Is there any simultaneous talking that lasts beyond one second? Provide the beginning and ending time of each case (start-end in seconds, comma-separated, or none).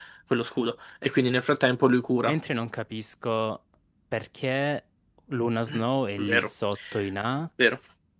none